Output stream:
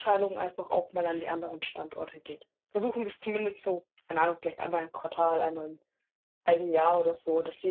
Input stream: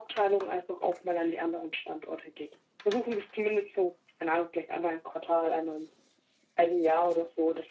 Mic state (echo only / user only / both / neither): echo only